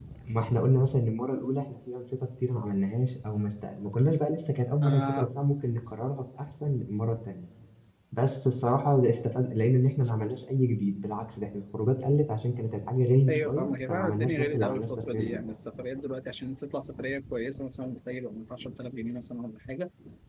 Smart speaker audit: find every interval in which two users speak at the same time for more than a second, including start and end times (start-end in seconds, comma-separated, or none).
13.3-15.4